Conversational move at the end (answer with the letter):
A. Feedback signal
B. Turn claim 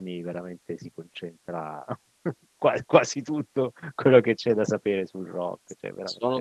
B